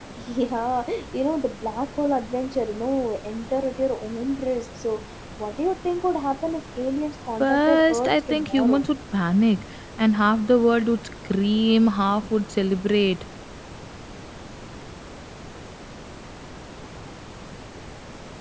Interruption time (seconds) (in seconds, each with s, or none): 7.4 s